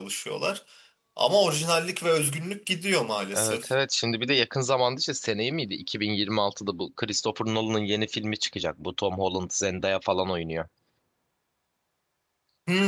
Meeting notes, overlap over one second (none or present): none